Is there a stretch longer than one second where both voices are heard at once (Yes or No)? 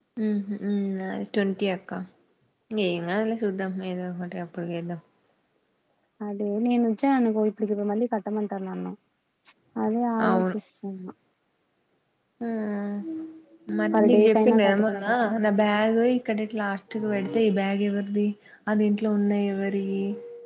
Yes